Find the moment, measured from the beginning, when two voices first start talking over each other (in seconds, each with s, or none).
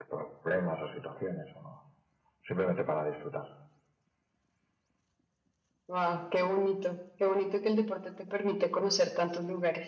none